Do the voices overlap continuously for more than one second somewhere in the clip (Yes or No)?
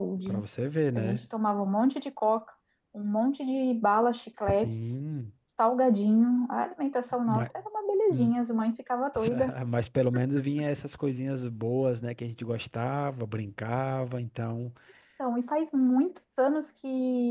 No